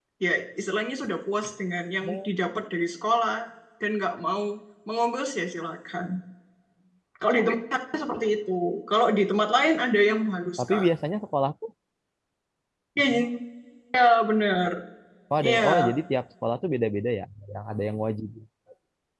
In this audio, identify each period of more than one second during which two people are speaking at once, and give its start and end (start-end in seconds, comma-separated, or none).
none